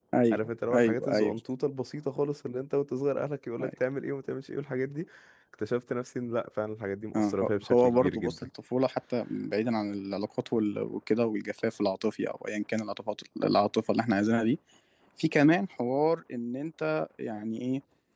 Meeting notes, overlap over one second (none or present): present